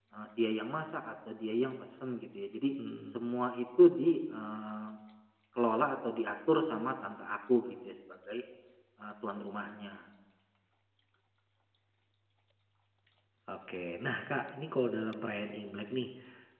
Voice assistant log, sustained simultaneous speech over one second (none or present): none